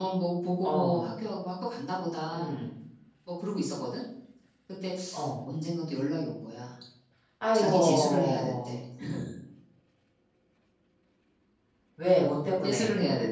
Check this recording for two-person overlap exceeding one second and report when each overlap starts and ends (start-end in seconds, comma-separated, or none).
7.5-8.8